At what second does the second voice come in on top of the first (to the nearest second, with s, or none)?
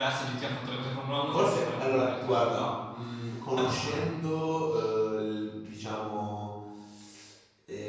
1 s